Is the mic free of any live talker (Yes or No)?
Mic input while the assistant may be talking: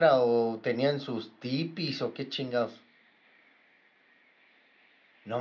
No